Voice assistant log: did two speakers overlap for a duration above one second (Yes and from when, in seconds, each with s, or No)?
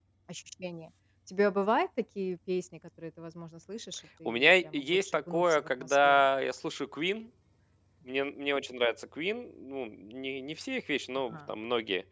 Yes, from 4.2 s